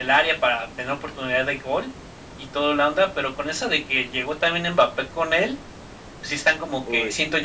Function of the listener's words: listening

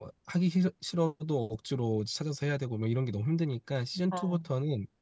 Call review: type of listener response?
listening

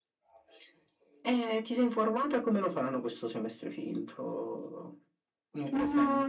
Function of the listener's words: taking over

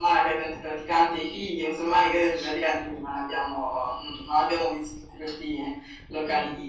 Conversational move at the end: listening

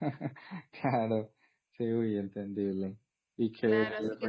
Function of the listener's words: taking over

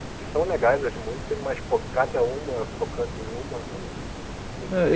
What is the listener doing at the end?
taking over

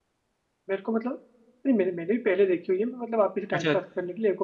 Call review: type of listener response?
listening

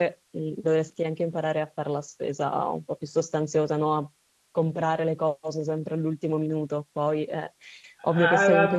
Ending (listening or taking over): taking over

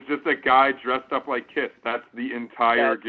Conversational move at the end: taking over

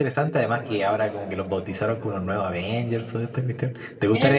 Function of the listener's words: taking over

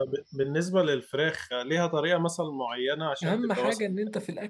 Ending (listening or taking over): taking over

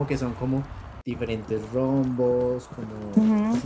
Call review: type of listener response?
taking over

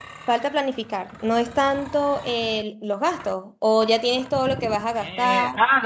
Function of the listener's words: taking over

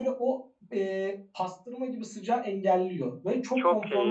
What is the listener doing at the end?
taking over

